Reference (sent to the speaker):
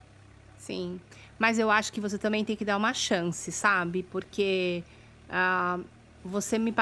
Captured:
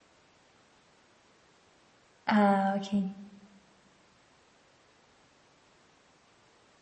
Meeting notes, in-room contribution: present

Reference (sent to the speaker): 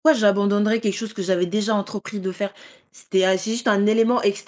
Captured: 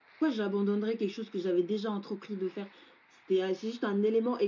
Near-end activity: none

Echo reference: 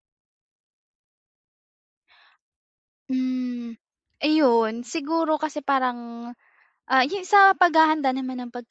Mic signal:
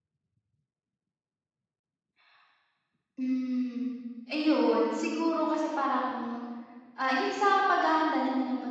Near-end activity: none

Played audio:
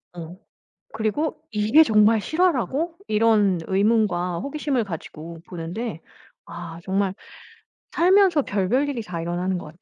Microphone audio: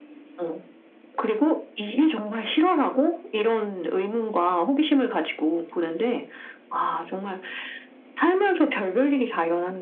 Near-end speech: none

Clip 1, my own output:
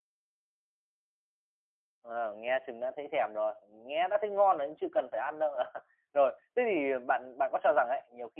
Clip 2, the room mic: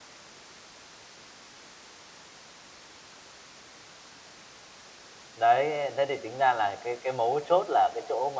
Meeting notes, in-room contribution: present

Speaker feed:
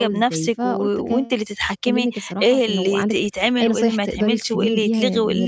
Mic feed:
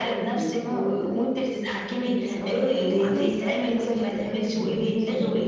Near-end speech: present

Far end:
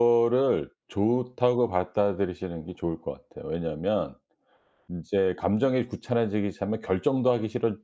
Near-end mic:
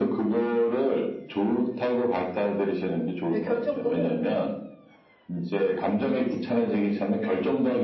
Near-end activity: present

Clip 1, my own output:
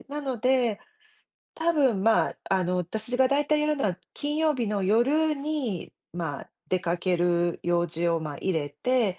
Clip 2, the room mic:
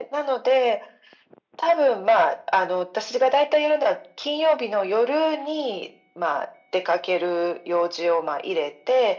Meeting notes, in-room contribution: none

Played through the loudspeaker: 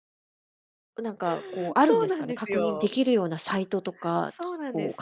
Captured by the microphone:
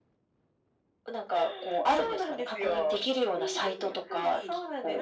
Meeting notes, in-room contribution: present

